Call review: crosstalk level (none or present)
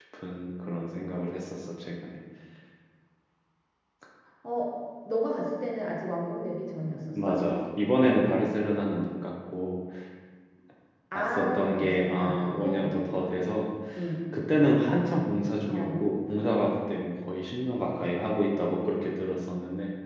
present